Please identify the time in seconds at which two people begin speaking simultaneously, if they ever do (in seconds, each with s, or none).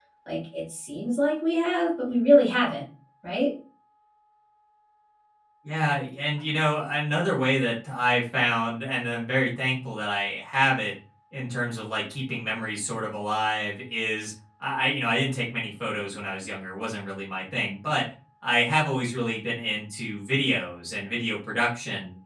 none